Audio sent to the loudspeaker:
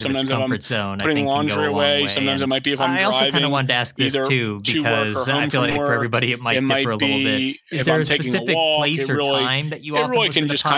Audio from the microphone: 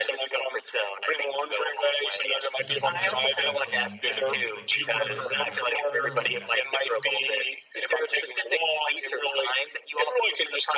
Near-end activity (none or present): present